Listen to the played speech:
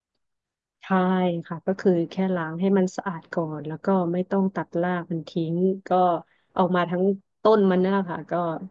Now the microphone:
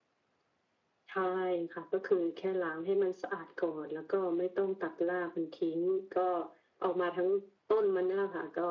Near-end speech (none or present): none